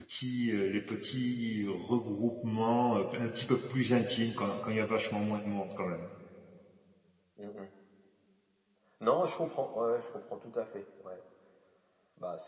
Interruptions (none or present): none